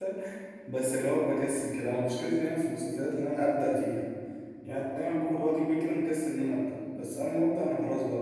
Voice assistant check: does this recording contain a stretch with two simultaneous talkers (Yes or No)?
No